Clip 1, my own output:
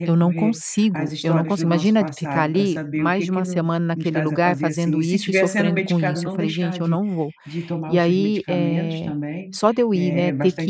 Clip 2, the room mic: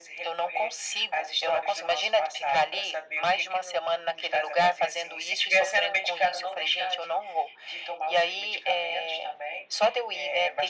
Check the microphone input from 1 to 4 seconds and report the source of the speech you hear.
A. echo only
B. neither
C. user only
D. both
A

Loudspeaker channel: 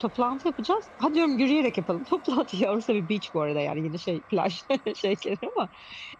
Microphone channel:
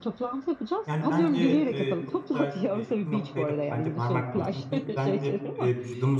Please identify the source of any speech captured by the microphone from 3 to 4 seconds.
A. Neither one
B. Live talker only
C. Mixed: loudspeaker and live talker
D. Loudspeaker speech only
C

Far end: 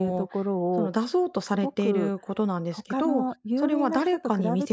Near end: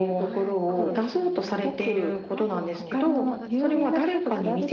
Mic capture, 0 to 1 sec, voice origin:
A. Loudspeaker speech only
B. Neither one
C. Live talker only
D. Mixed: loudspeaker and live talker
D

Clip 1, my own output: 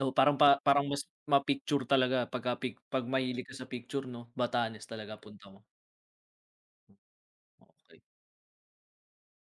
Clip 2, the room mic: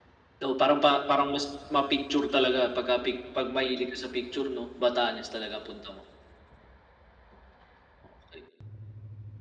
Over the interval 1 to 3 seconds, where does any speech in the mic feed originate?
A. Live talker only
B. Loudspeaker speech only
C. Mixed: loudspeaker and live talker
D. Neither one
B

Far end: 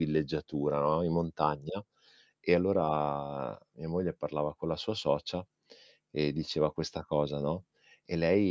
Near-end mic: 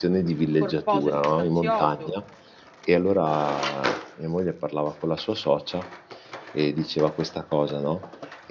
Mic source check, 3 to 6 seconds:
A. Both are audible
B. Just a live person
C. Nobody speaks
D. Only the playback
D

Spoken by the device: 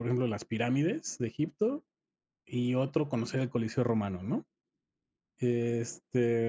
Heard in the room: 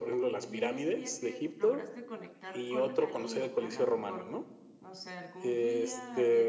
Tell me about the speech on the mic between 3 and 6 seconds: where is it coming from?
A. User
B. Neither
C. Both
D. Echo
C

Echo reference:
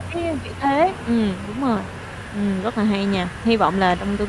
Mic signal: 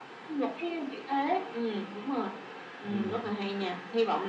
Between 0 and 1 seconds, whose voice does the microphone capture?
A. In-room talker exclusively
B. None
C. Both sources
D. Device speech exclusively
D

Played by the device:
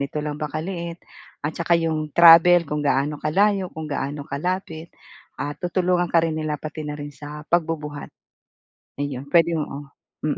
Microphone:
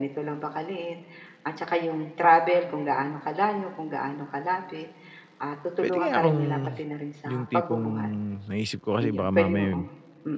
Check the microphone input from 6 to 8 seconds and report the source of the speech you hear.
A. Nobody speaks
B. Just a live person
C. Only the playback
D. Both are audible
D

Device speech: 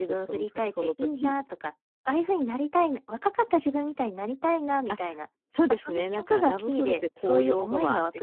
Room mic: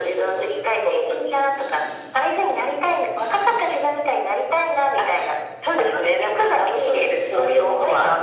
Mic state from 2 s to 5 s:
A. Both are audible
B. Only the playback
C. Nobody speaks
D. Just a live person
B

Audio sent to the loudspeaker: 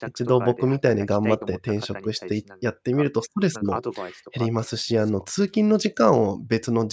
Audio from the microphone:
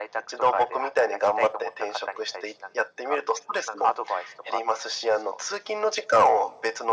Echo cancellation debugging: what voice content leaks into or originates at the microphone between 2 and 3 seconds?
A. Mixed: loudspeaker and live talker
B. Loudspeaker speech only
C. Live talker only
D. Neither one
B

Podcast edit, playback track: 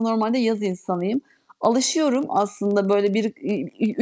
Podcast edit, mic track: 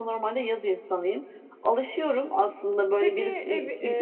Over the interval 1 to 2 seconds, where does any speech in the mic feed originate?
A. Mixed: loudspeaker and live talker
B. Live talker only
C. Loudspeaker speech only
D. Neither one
C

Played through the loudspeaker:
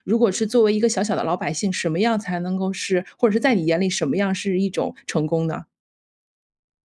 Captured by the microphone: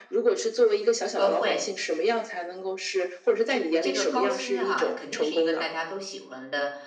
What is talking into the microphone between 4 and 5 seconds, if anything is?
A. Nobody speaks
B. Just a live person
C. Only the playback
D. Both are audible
D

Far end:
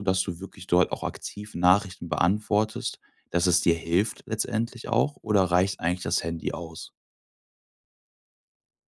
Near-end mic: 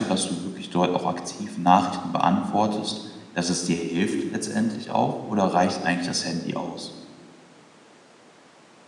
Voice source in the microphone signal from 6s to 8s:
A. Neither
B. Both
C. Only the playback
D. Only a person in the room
C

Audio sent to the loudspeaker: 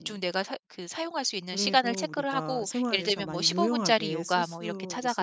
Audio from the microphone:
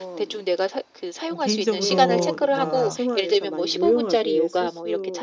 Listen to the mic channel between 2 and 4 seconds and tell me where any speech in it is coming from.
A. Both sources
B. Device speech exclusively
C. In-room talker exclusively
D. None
A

